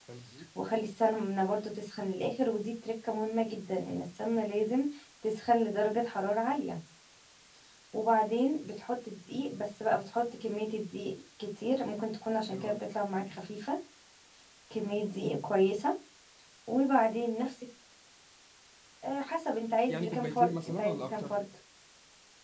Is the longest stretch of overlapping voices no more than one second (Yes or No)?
No